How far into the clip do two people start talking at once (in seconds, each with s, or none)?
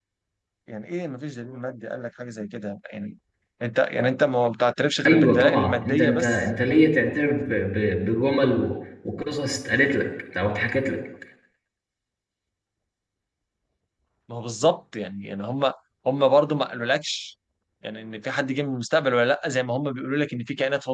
5.0 s